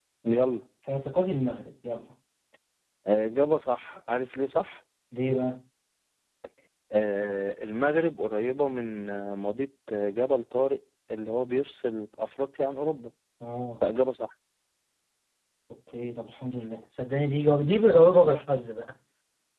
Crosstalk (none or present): none